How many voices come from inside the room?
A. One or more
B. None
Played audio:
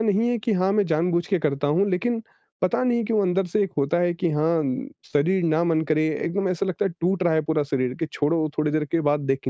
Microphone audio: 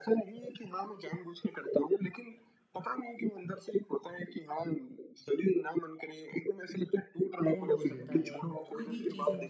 A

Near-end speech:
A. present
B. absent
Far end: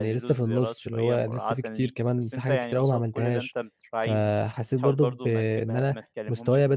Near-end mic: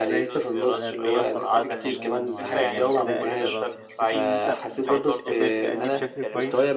A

